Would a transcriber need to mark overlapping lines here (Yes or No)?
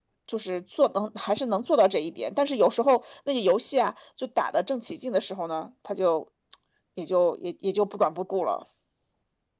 No